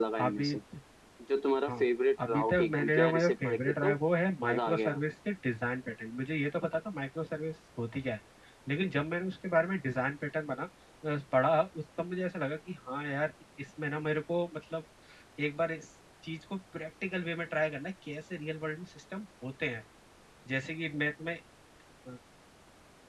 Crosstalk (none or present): present